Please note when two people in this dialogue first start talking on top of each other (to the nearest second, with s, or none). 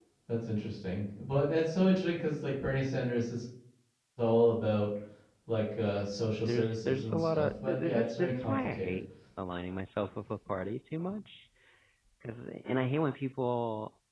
6 s